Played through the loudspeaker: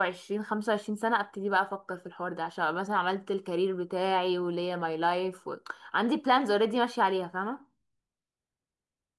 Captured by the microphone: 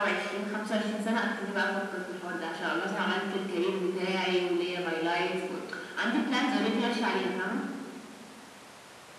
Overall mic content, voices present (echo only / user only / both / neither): echo only